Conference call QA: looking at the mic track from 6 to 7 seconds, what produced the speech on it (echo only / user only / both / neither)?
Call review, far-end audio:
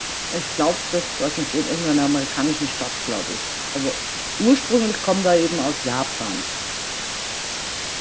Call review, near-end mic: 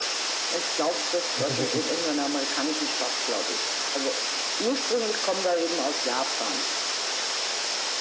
echo only